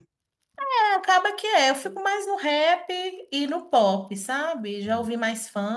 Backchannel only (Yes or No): Yes